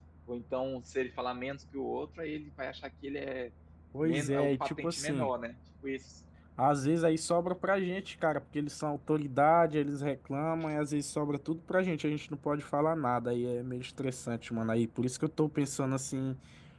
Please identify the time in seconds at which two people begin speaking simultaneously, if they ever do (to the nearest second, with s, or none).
4 s